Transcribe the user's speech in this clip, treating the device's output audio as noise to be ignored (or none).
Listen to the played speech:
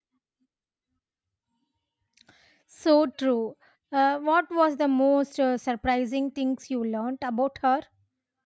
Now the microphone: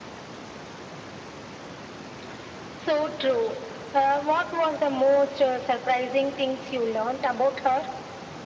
none